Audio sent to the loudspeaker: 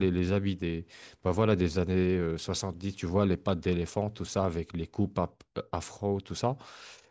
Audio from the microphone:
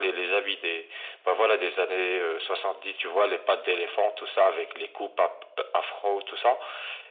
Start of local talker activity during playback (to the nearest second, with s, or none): none